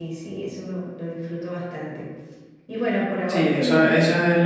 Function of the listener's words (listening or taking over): taking over